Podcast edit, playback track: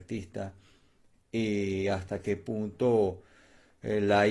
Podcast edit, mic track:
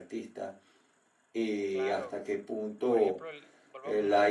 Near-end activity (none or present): present